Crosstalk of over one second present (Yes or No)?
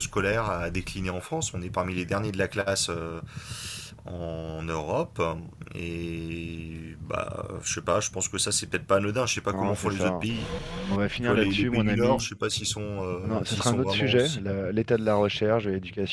Yes